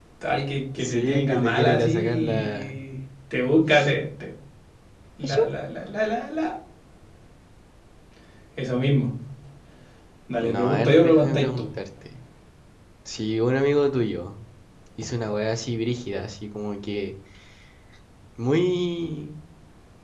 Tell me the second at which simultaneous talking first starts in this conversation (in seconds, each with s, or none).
0.8 s